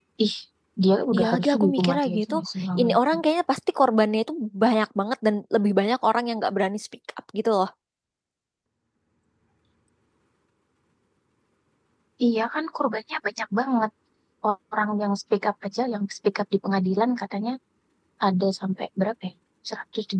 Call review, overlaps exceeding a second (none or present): present